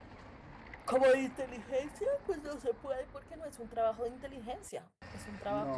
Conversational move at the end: taking over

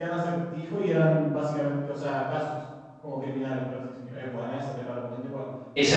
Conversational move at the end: taking over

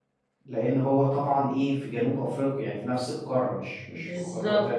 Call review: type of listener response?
taking over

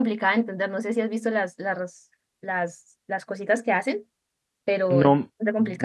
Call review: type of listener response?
taking over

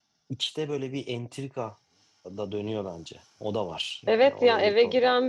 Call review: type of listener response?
taking over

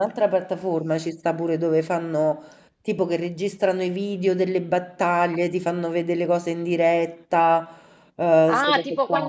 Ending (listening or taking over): taking over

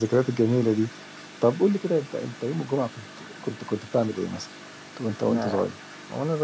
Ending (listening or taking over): taking over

